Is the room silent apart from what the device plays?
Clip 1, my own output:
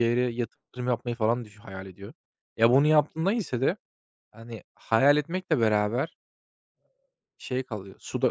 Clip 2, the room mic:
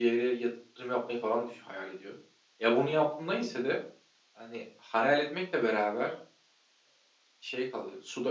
Yes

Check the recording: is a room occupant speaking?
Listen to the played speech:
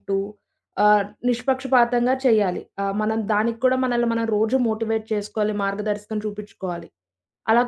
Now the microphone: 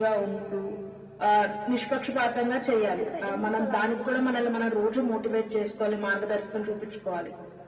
Yes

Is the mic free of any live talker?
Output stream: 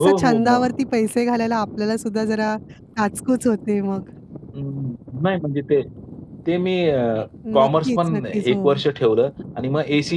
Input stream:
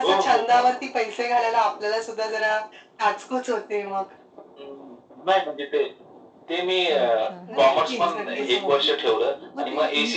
No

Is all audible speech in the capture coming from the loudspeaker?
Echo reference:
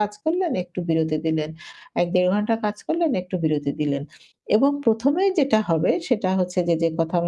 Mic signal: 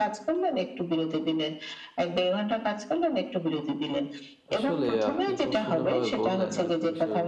No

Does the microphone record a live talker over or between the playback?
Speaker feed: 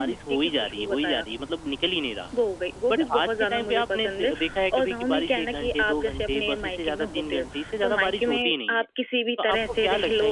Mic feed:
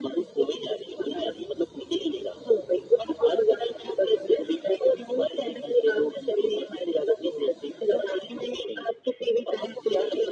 No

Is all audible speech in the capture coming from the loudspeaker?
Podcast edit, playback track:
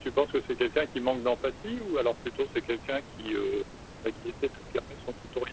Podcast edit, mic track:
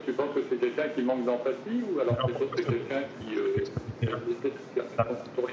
No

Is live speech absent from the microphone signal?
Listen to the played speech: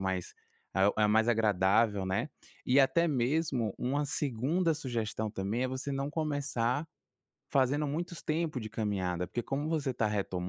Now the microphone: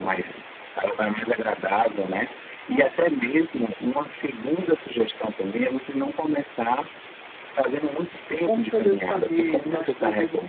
No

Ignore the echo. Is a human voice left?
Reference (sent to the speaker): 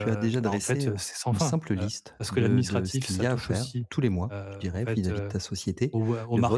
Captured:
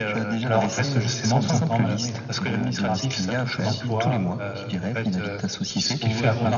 Yes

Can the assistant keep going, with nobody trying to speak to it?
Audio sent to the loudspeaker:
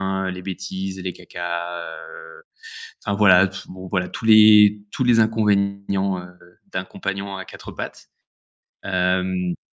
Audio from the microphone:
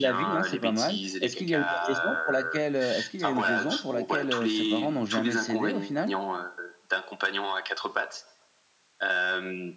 No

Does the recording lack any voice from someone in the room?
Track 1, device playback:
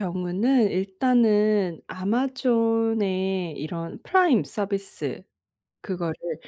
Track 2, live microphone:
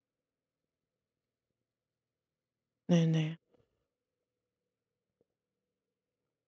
No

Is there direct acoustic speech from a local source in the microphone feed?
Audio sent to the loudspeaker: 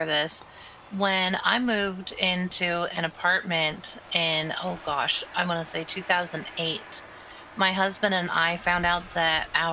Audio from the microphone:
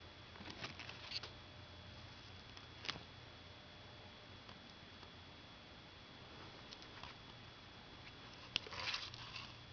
No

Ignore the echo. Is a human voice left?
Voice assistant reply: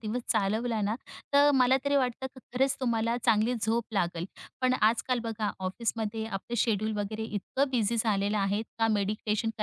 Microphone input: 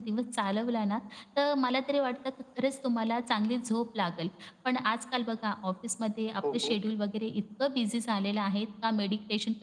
Yes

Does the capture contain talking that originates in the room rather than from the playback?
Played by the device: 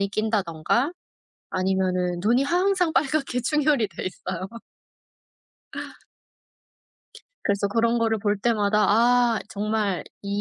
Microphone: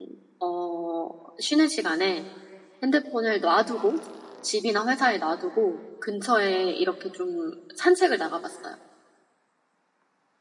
Yes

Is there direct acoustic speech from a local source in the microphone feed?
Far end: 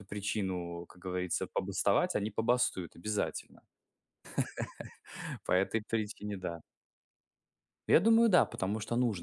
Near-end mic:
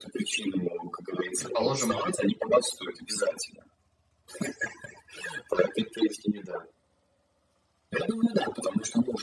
Yes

